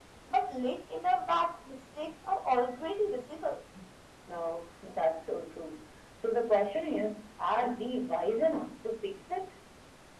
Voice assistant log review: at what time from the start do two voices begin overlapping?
none

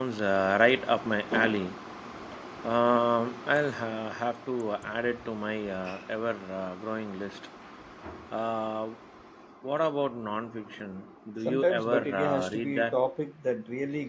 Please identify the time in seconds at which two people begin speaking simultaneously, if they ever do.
11 s

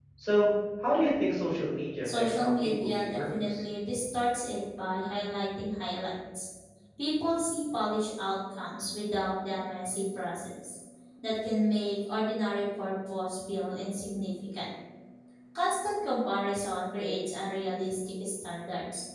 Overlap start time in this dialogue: 2 s

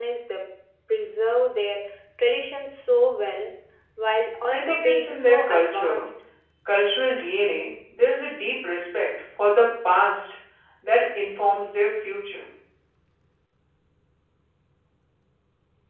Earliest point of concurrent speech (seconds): 4 s

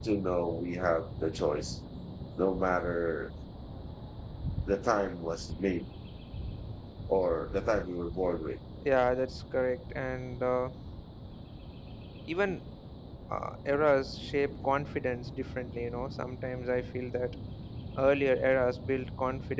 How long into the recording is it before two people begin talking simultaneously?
none

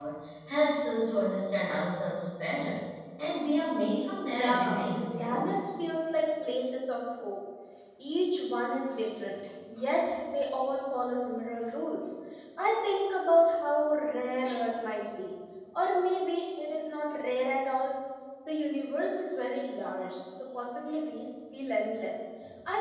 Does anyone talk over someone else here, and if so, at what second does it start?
4 s

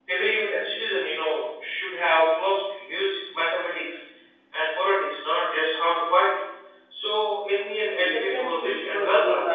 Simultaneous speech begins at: 8 s

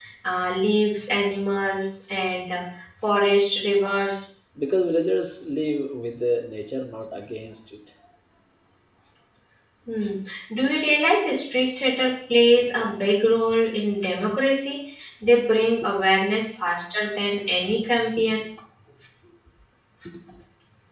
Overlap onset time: none

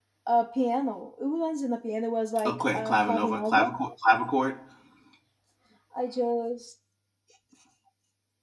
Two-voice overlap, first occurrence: 2 s

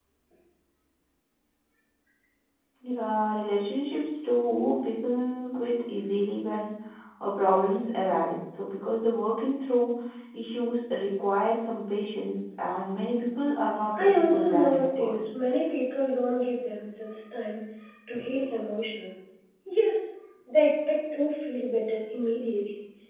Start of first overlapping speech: 14 s

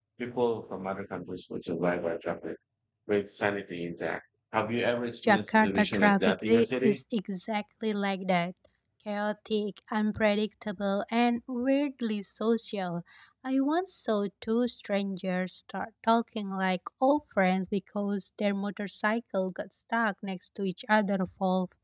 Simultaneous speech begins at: 5 s

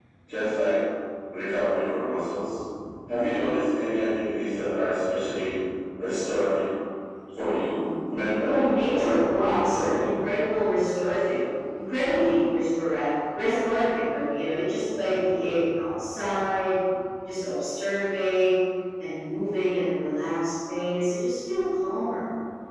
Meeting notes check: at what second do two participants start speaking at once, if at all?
8 s

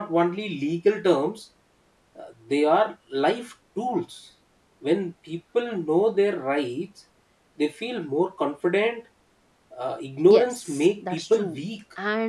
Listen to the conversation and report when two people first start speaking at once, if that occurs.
10 s

